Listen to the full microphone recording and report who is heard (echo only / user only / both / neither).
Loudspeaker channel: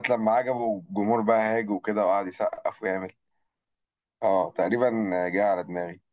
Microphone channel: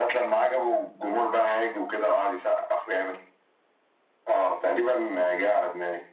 echo only